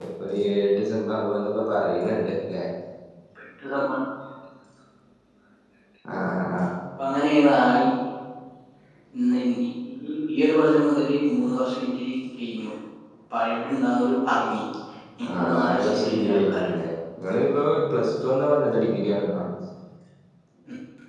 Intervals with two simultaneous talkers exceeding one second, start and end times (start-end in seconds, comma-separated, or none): 15.3-16.8